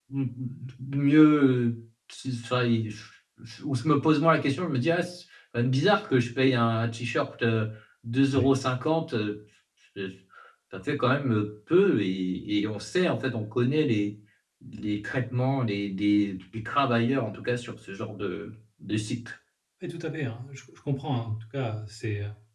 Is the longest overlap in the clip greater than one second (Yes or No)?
No